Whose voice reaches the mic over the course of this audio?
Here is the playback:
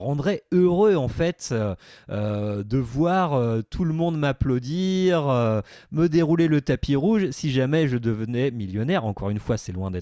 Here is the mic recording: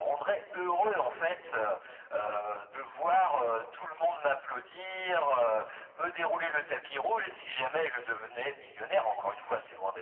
echo only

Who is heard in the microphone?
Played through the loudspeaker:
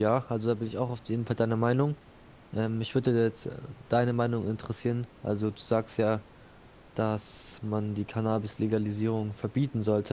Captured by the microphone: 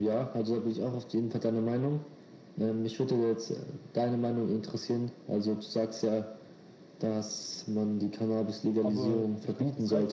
both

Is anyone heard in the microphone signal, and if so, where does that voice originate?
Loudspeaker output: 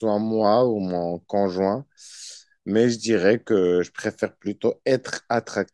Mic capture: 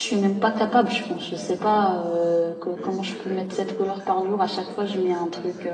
both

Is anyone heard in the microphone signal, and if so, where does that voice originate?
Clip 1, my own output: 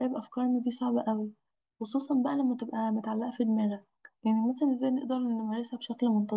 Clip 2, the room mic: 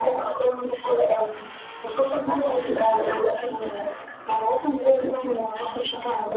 echo only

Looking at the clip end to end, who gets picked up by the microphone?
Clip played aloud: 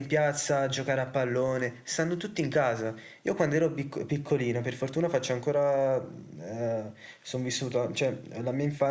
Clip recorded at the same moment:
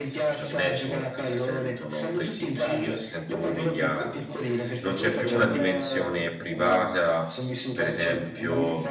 both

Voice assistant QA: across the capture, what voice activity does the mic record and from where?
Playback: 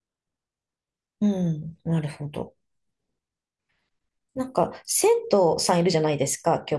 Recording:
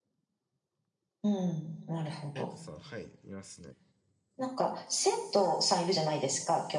both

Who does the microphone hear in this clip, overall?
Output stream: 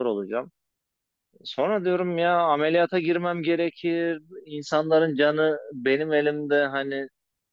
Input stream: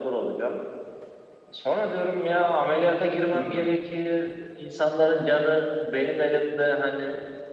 both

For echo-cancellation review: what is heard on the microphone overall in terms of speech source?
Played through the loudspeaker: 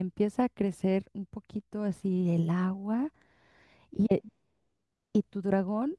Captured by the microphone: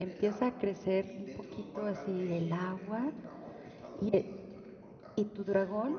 both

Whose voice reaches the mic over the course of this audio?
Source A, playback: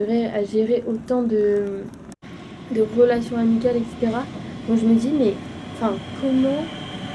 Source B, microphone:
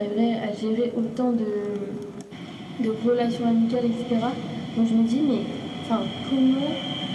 echo only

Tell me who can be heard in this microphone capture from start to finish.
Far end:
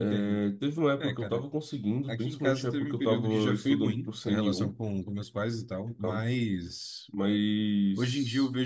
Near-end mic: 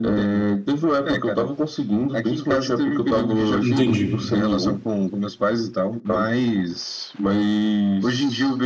both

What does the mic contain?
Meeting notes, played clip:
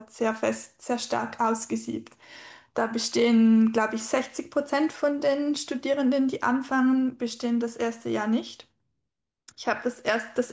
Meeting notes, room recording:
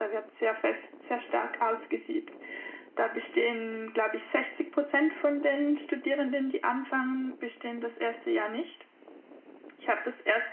echo only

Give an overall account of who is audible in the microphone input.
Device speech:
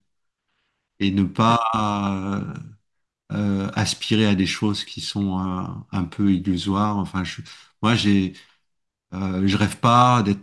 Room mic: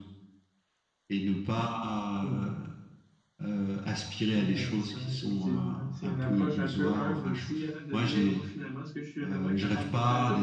both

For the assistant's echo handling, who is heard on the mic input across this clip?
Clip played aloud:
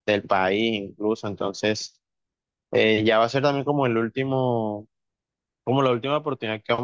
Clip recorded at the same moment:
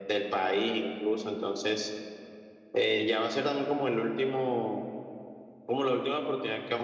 echo only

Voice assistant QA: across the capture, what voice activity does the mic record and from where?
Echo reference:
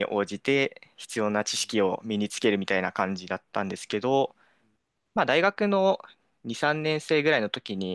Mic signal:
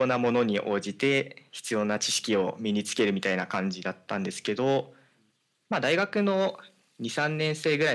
echo only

